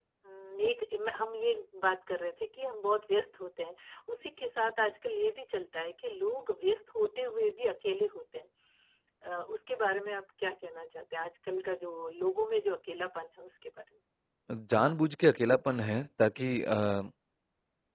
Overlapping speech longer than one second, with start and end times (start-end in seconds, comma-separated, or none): none